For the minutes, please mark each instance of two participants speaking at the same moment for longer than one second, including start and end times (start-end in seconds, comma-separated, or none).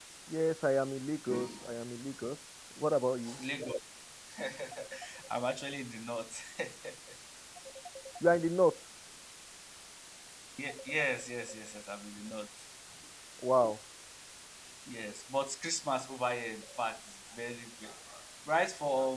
none